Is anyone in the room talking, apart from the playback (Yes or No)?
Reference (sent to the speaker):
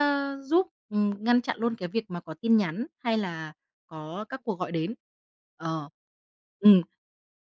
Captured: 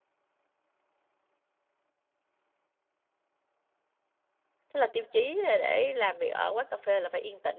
Yes